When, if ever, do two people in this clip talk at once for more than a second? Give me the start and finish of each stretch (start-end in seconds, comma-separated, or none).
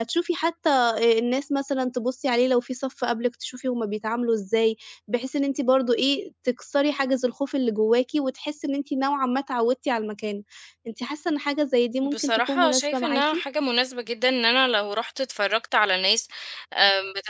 12.0-13.2